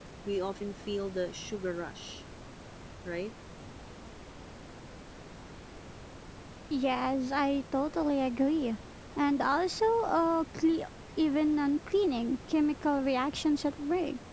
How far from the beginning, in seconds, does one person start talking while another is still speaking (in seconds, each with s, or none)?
none